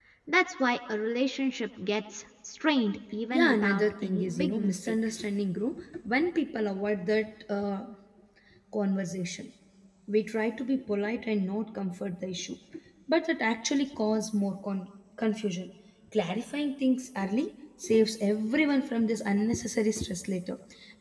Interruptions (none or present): present